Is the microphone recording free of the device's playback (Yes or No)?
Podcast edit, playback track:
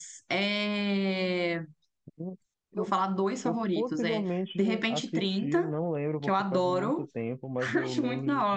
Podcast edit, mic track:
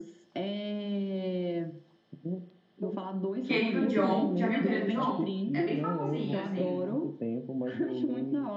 No